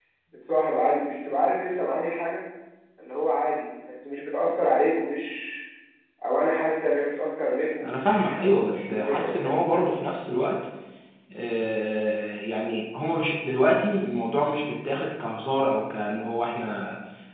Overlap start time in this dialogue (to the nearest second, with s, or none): 8 s